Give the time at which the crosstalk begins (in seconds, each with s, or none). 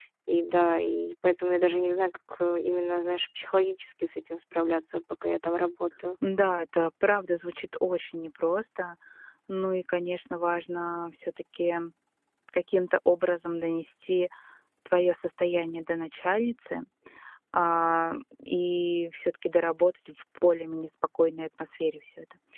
none